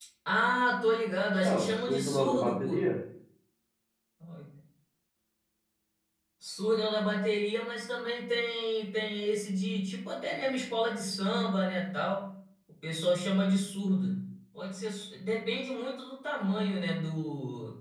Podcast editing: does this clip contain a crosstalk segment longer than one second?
Yes, from 1.4 s

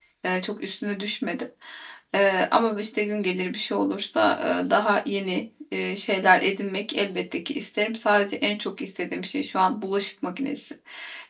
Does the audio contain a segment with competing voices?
No

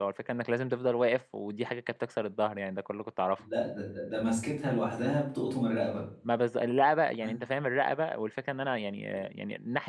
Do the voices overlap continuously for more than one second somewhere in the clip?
No

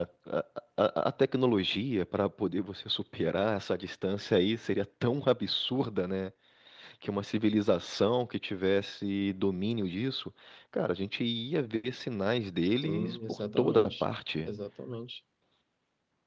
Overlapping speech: Yes, from 12.8 s

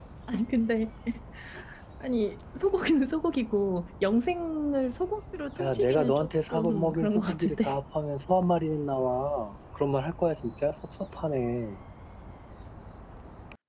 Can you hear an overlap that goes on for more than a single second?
Yes, from 5.6 s

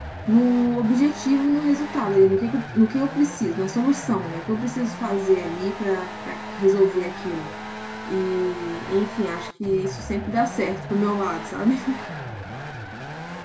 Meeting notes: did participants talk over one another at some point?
No

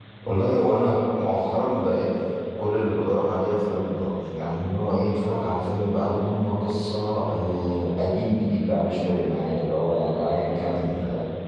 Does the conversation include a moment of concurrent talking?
No

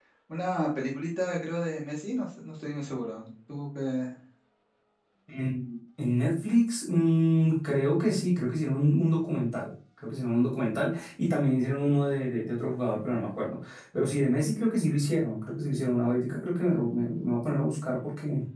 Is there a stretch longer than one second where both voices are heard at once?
No

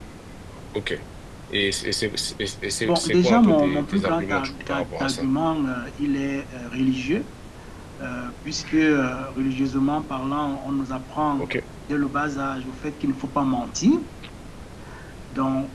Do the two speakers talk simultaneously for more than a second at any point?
Yes, from 2.8 s

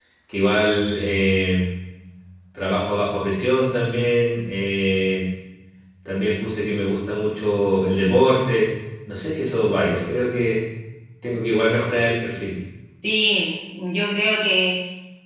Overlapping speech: No

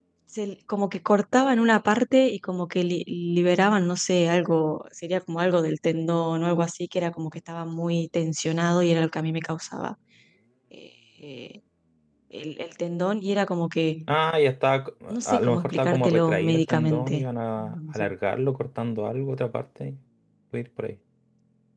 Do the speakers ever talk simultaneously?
Yes, from 15.1 s

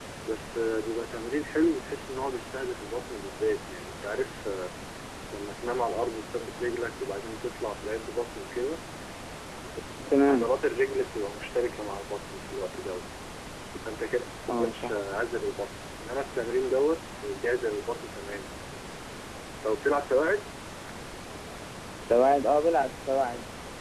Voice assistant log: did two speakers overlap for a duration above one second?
No

